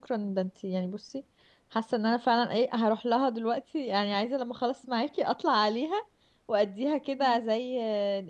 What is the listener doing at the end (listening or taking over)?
listening